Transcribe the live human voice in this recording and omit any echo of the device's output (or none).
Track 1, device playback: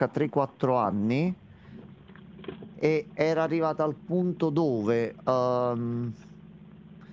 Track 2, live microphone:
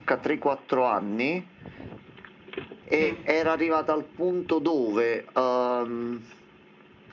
sì.